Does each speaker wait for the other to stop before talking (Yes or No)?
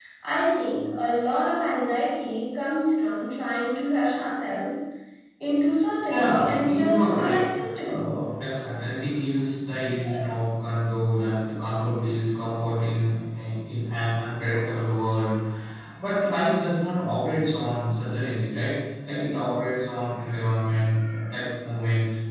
No